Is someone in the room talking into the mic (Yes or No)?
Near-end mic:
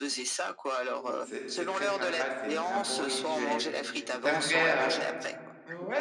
Yes